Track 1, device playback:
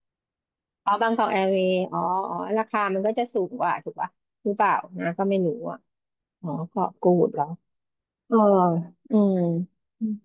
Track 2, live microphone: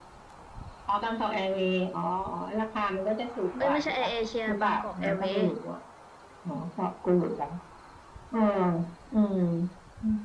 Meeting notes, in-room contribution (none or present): present